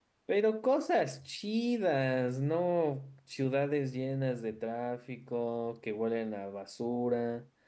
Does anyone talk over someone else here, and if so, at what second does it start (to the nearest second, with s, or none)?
none